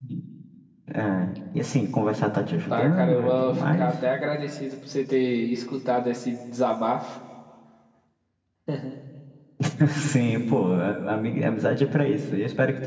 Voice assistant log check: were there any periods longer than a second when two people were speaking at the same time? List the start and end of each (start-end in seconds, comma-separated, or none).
2.7-3.9